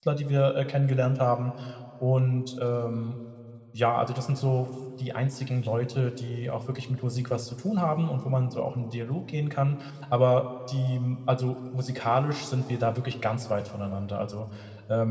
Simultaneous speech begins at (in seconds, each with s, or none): none